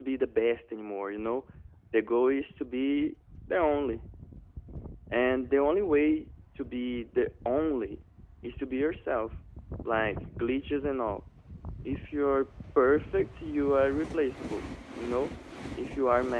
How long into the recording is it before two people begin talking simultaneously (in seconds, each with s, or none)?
none